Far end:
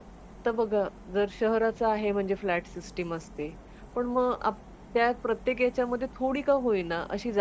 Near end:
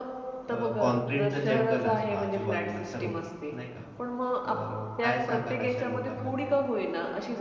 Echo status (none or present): present